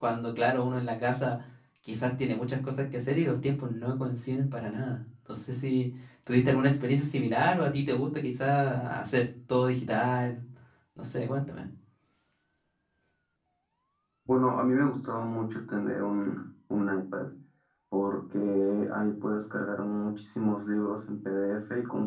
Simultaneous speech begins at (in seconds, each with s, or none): none